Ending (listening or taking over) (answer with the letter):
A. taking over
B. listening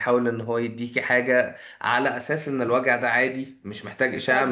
A